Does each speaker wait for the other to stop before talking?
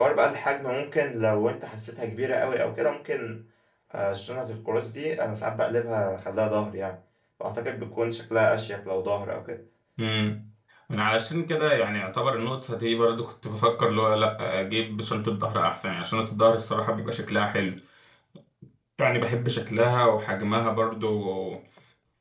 Yes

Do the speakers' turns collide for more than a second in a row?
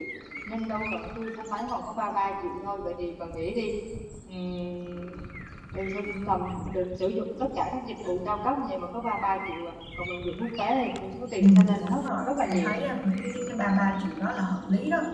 Yes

